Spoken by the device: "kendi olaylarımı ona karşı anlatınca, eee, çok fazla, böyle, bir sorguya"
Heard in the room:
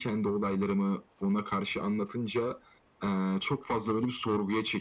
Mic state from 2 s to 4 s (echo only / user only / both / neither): echo only